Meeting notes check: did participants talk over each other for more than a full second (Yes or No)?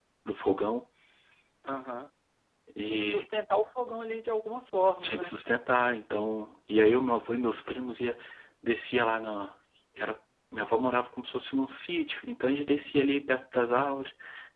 No